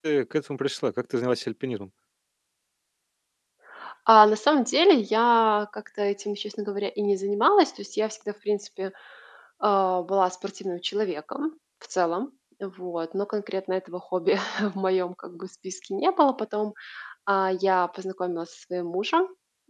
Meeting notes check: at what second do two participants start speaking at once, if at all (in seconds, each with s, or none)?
none